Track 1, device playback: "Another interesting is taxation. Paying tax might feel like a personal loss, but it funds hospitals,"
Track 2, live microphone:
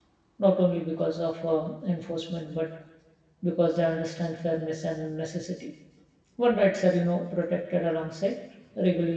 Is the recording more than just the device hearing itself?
Yes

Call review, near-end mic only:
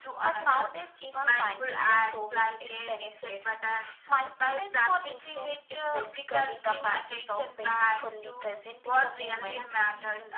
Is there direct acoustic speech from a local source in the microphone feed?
Yes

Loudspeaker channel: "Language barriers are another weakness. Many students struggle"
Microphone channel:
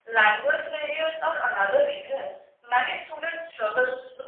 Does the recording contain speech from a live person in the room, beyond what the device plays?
No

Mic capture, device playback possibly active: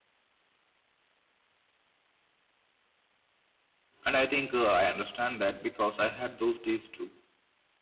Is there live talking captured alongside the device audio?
Yes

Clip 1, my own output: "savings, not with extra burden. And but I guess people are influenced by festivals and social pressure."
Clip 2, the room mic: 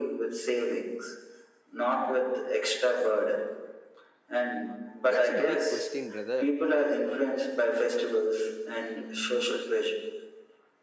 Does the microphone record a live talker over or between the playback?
Yes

